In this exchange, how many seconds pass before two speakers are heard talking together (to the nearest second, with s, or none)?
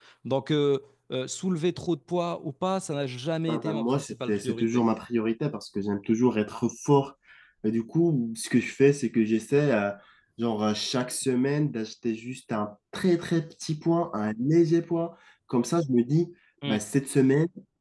3 s